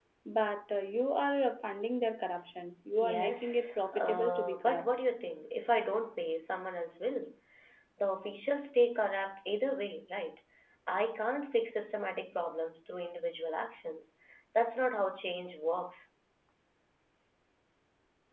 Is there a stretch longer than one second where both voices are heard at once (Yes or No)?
Yes